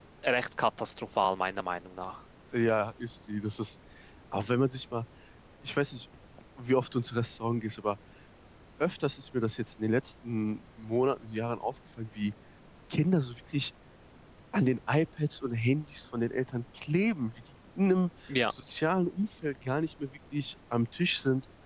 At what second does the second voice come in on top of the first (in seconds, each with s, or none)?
none